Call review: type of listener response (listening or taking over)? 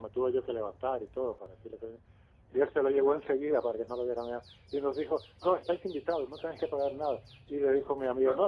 listening